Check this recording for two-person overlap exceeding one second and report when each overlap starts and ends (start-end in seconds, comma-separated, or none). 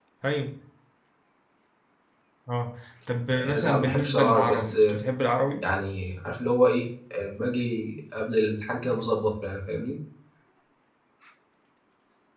3.4-5.0